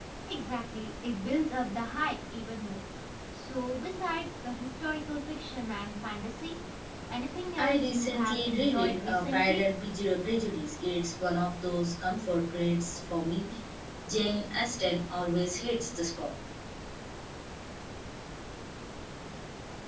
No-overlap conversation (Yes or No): No